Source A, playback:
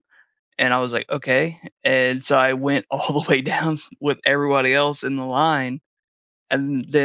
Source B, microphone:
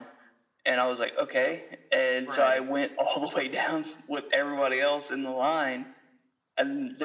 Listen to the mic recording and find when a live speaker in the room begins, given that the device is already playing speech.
2.2 s

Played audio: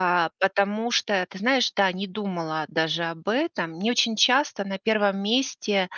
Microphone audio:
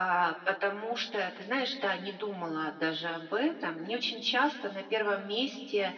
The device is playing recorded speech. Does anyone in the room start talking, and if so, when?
none

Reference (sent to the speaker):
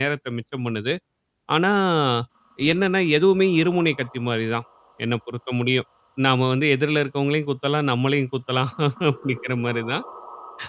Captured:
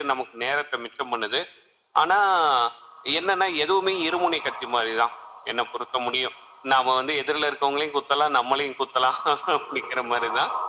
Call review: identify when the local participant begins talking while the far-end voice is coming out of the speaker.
none

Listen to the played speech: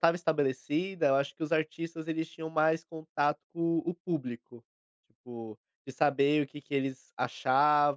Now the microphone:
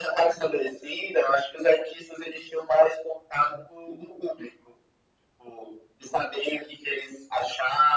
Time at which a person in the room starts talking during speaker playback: none

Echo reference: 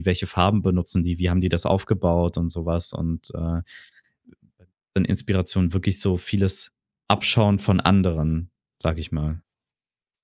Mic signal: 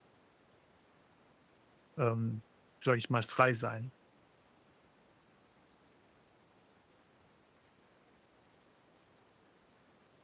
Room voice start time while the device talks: 2.0 s

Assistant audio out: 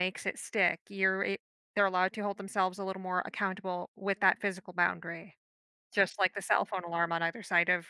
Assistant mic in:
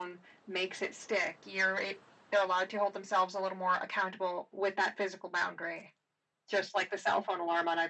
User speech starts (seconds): none

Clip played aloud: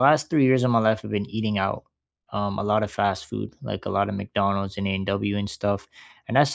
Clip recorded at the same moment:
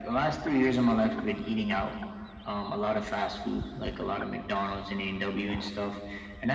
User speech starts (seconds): none

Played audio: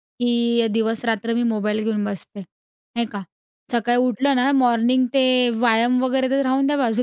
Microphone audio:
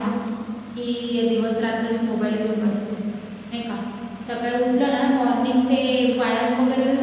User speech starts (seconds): none

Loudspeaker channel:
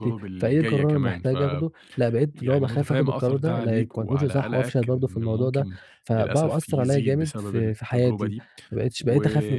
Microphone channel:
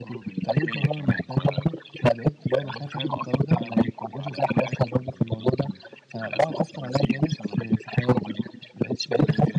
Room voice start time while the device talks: none

